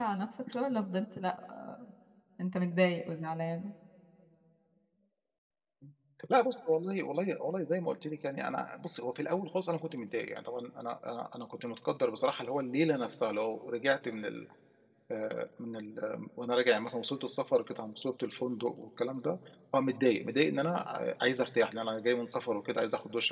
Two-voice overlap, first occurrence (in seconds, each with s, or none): none